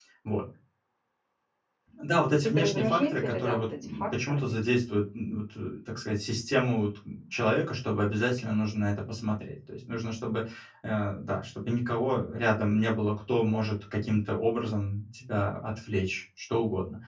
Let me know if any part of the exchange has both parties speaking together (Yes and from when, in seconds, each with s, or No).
Yes, from 2.4 s